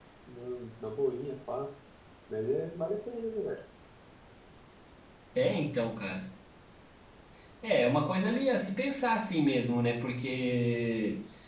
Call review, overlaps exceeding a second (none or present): none